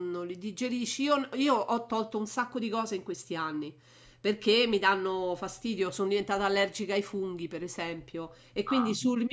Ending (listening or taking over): listening